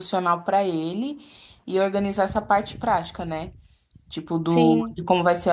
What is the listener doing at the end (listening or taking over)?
listening